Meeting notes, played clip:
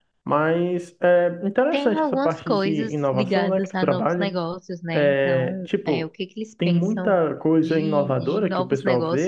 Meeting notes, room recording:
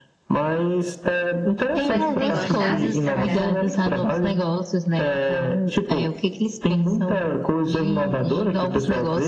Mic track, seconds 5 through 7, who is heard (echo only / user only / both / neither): echo only